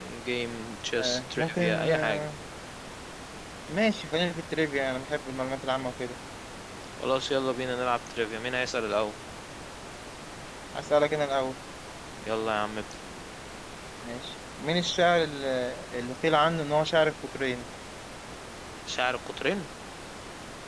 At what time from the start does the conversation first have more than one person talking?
1.0 s

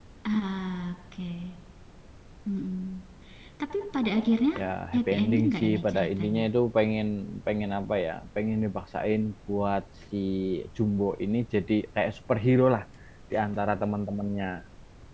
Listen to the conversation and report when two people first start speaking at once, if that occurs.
4.9 s

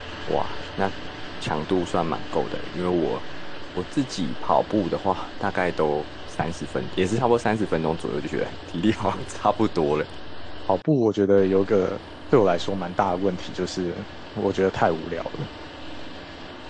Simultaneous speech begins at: none

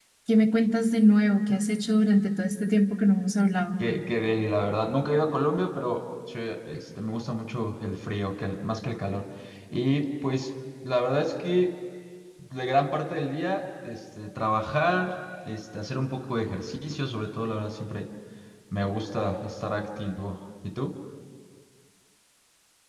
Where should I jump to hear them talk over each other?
none

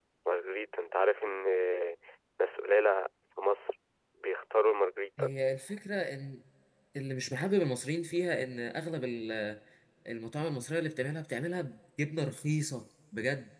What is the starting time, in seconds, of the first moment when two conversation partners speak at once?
none

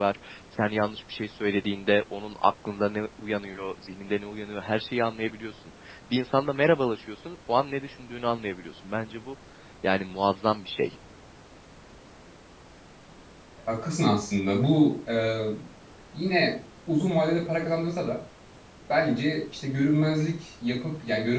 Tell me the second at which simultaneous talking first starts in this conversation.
none

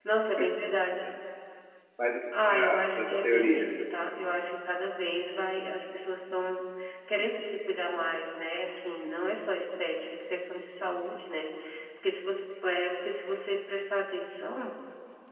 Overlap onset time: 2.5 s

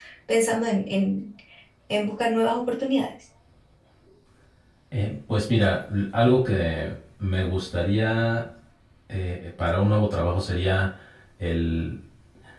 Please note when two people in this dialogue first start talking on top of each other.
none

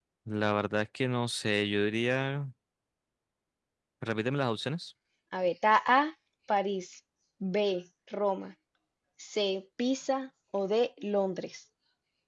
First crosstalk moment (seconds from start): none

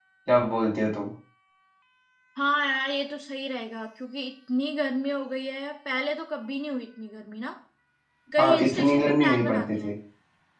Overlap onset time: 8.4 s

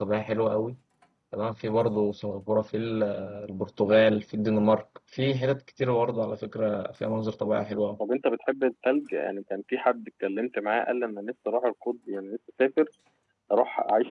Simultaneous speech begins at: none

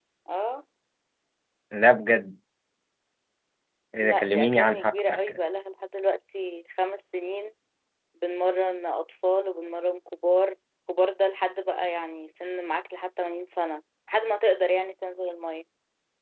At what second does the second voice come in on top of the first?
4.0 s

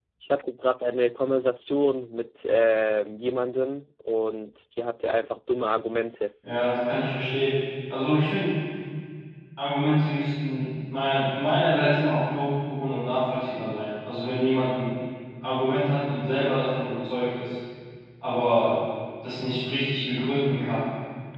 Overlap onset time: none

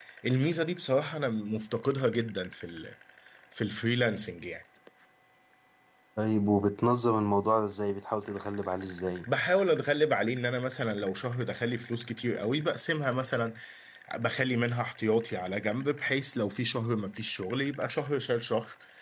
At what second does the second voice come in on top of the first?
none

